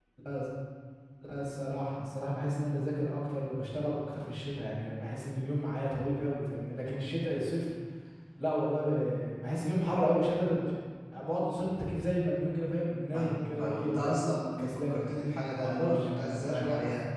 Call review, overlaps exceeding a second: present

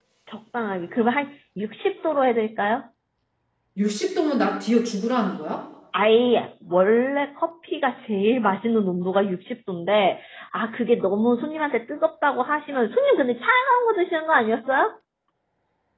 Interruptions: none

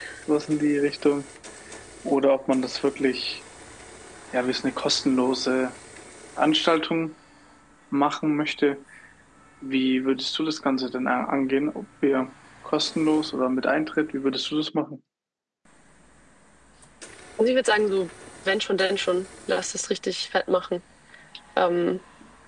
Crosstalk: none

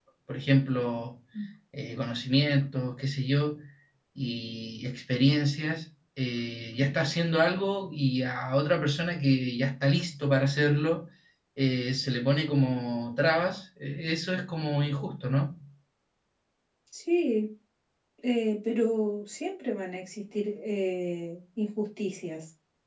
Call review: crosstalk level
none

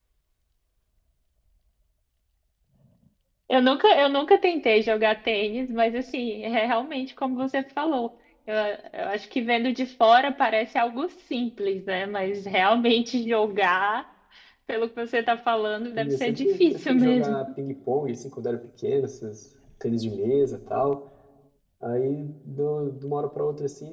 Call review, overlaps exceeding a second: present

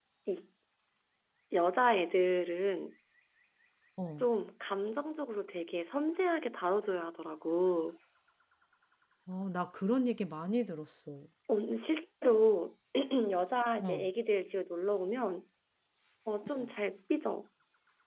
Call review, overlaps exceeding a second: none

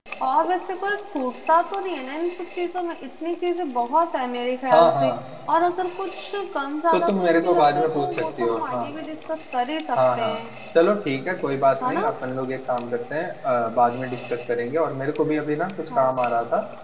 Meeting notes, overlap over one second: present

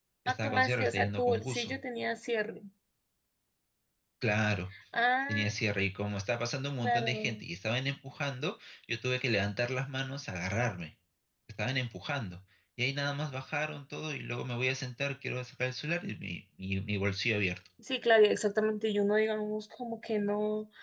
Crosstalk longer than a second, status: present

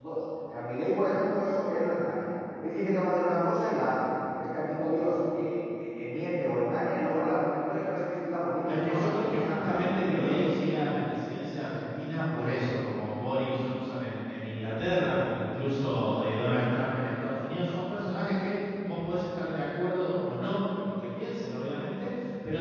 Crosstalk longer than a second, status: present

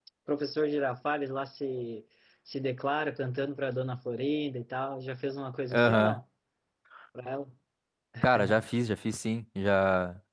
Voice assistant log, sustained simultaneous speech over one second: none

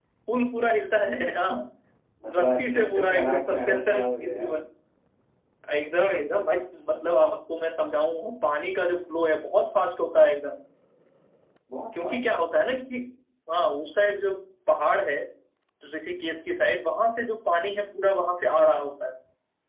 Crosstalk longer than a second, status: present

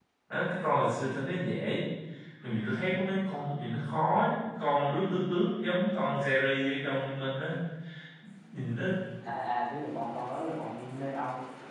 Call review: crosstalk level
none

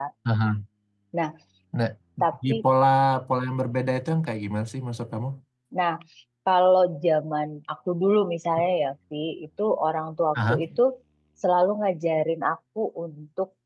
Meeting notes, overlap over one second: none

